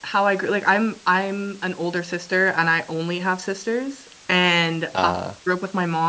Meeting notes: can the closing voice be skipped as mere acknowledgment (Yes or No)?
Yes